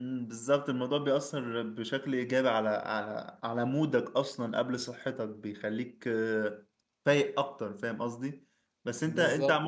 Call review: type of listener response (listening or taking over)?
listening